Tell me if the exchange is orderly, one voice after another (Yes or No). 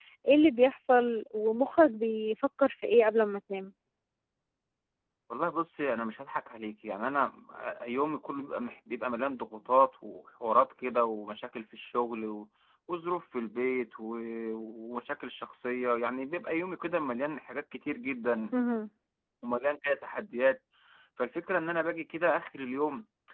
Yes